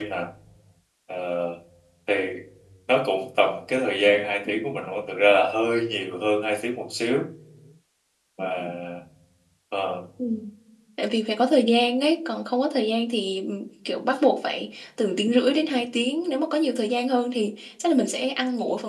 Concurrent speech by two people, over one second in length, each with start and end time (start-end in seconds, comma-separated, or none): none